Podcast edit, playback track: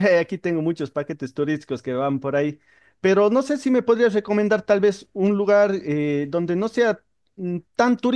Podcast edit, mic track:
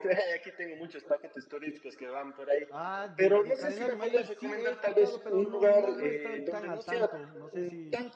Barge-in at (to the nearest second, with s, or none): 3 s